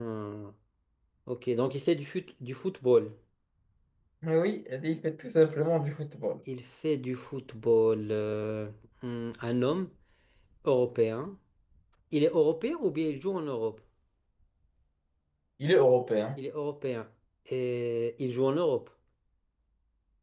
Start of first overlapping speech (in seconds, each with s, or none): none